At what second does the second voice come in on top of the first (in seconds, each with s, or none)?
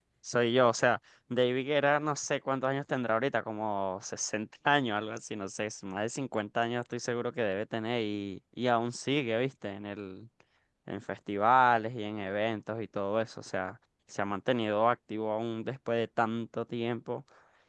none